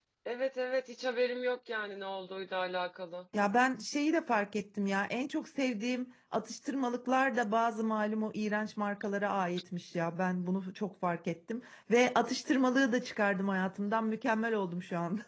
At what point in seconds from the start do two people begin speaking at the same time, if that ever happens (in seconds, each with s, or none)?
none